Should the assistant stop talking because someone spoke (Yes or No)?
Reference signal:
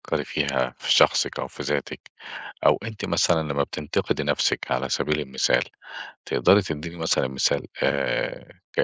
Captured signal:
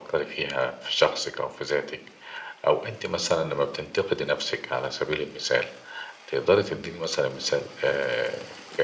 No